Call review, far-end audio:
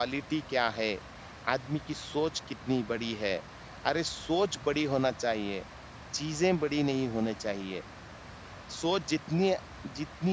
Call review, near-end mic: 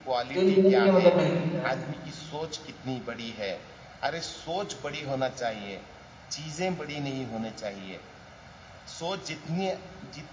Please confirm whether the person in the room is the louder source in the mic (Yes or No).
Yes